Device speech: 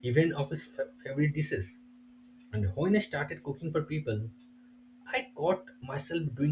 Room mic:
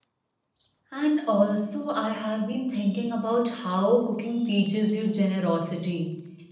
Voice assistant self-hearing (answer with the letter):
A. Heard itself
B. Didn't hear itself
B